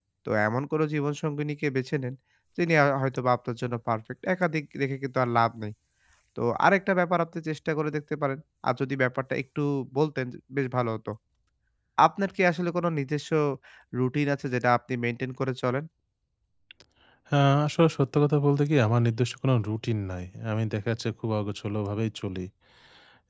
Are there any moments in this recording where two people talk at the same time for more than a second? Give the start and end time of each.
none

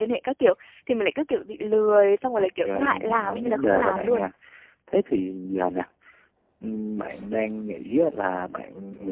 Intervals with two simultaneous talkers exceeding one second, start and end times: 2.3-4.3

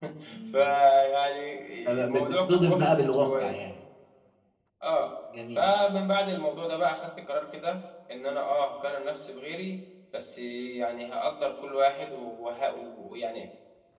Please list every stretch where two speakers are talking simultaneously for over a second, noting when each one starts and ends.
2.0-3.5

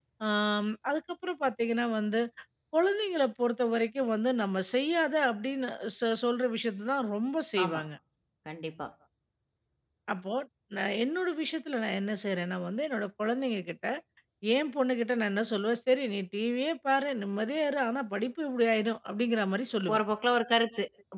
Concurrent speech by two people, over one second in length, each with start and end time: none

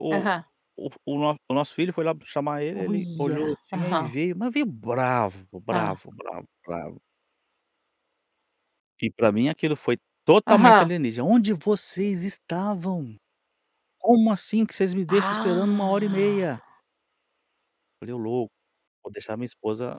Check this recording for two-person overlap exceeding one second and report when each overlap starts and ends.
2.8-4.1, 15.1-16.4

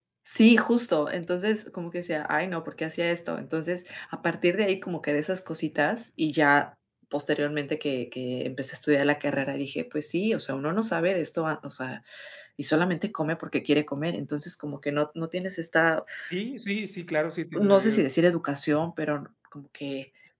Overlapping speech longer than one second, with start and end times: none

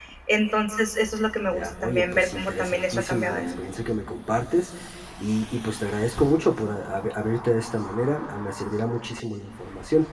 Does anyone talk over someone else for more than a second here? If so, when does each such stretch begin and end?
1.5-3.6

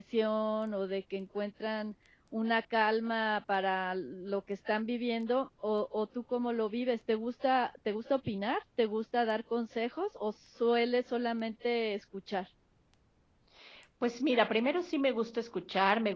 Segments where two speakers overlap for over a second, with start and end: none

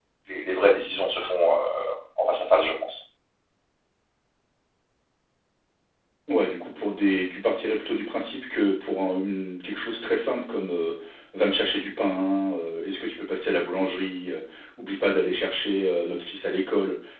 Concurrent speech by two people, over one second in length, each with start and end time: none

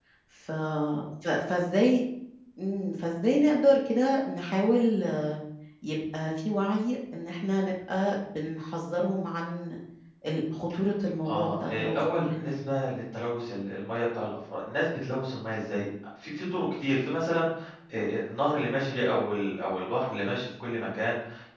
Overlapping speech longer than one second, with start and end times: 11.3-12.6

